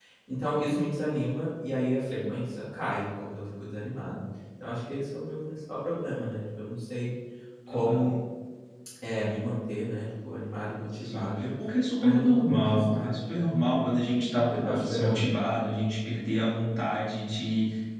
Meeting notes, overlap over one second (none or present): present